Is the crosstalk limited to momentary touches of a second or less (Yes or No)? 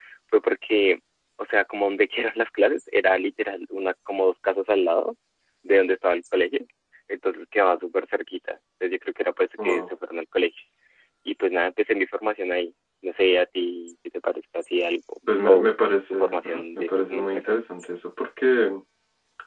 No